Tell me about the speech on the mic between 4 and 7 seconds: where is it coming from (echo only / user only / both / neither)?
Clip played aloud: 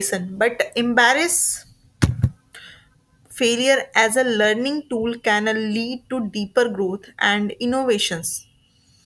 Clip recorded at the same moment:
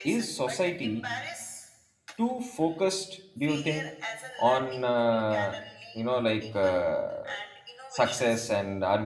both